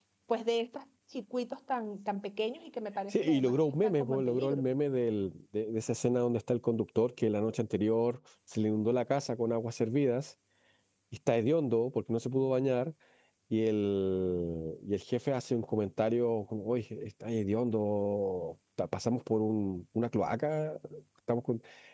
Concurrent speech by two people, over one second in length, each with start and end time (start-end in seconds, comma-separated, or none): 3.1-4.6